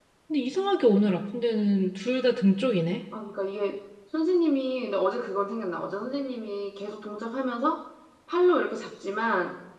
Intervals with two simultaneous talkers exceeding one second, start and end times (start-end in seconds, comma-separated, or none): none